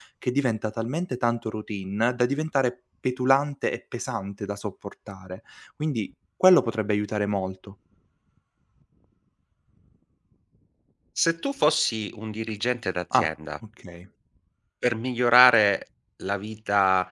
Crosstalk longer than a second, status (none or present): none